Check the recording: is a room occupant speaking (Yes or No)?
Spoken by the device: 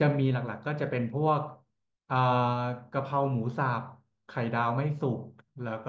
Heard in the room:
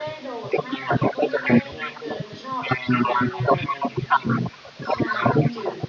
Yes